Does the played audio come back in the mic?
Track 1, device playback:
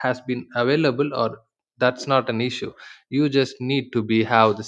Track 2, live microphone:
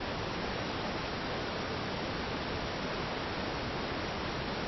No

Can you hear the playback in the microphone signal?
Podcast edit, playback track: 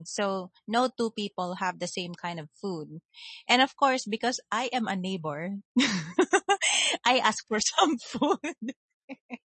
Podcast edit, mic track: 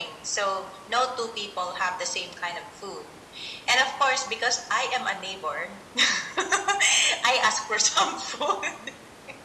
Yes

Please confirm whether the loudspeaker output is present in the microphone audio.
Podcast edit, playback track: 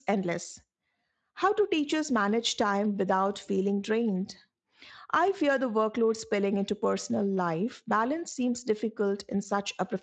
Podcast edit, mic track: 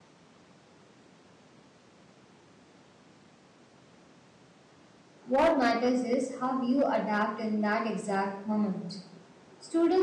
No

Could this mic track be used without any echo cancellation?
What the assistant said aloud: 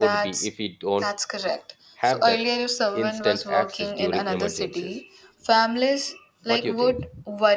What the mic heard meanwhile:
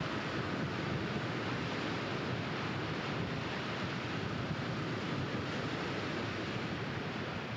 Yes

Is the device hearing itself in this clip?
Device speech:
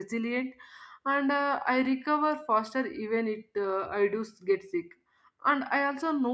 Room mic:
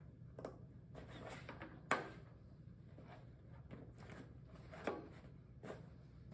No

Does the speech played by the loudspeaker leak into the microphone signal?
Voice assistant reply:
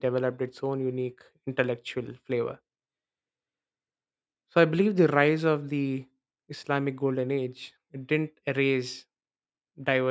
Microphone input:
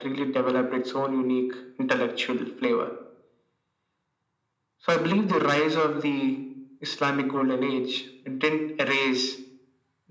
Yes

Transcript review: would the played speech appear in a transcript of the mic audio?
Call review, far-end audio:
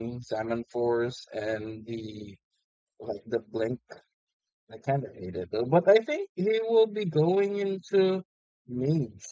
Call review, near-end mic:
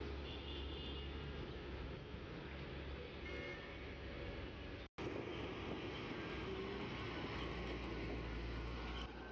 No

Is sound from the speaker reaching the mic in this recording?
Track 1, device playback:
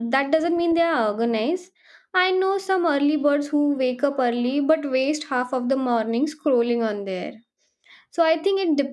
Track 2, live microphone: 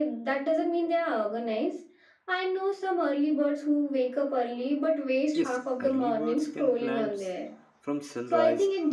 Yes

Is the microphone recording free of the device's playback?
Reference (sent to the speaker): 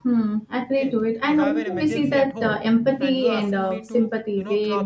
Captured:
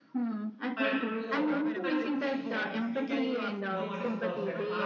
No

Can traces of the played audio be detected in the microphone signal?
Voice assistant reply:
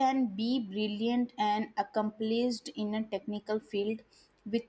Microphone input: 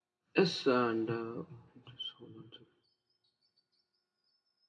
No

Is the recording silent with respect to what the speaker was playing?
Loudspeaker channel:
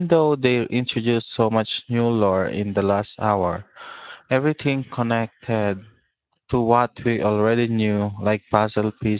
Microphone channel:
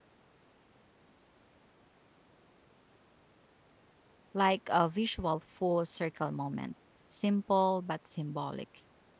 Yes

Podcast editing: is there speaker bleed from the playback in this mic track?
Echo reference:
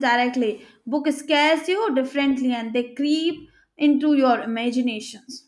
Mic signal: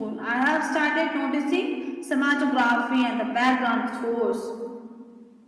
No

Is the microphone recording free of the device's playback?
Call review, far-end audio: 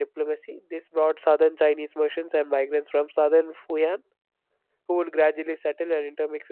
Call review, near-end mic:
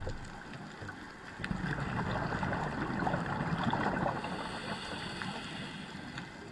Yes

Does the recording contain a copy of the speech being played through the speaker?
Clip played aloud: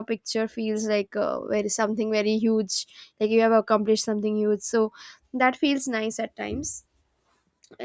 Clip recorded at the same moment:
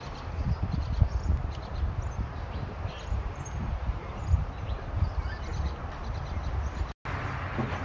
No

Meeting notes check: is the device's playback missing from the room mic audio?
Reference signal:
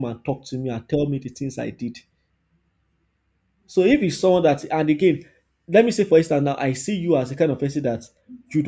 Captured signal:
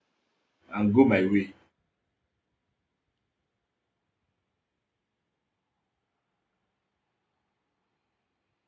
Yes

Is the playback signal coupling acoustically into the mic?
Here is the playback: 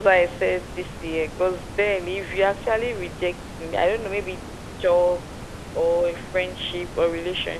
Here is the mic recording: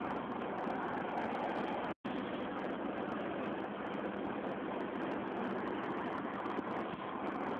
No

